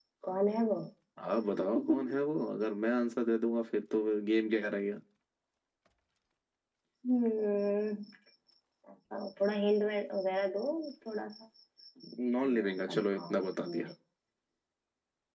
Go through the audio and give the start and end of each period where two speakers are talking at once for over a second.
12.4-13.9

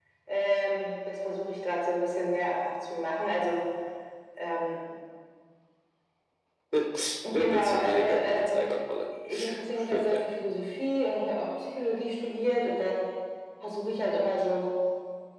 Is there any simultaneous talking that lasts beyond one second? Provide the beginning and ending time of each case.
7.5-8.7

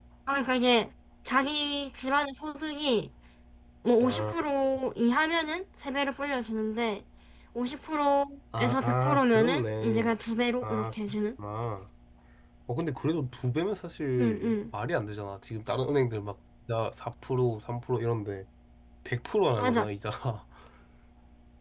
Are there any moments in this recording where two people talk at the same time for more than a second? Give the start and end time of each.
8.6-10.1

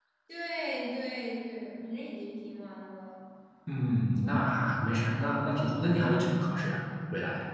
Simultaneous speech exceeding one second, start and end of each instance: none

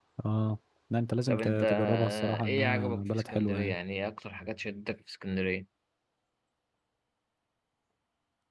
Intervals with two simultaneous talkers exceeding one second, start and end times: 1.3-3.8

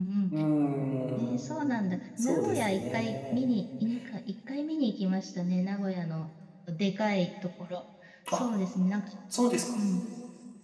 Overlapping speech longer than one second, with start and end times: 2.2-3.4

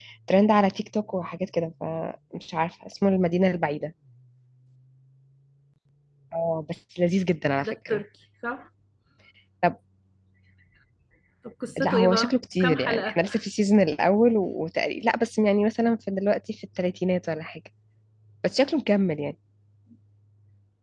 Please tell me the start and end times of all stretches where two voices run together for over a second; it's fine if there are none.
11.8-13.2

